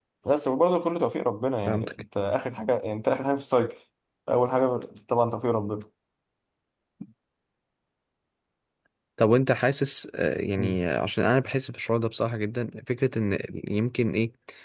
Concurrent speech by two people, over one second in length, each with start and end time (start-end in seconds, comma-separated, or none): none